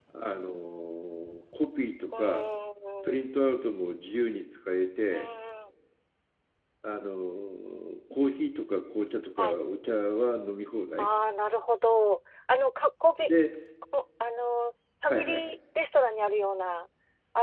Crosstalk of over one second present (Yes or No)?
No